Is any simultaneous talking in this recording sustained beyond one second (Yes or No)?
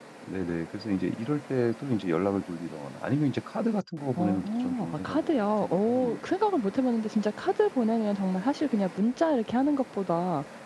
Yes